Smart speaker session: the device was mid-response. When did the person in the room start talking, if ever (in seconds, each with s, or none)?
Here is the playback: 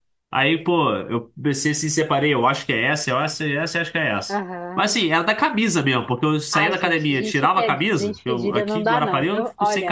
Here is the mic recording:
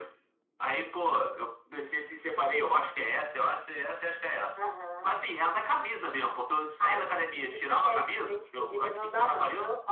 none